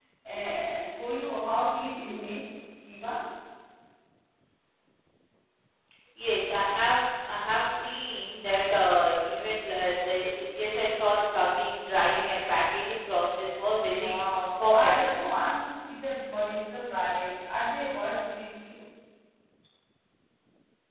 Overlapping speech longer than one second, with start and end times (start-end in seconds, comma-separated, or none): 13.8-15.1